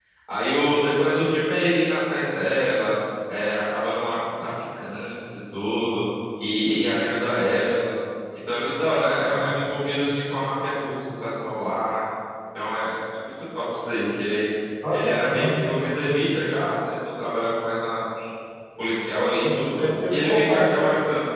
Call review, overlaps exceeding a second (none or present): present